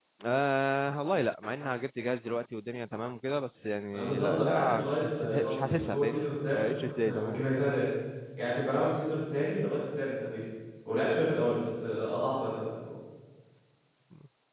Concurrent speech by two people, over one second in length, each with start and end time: 3.9-7.4

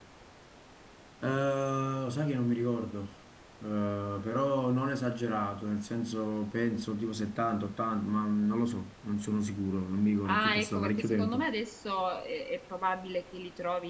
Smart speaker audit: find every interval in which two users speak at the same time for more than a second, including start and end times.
10.2-11.5

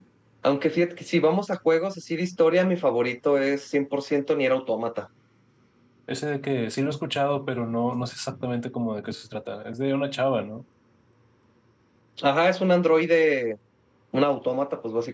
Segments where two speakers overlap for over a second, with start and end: none

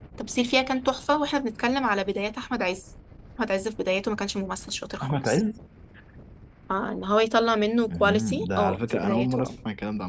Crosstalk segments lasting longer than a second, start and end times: 7.9-9.6

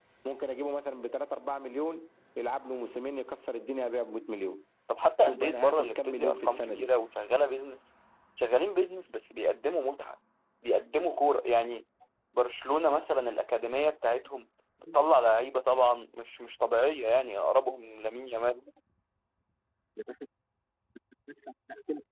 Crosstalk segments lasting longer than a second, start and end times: 5.2-6.9

